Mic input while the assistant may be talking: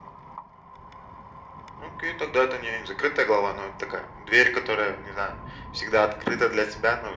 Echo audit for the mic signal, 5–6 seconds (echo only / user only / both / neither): echo only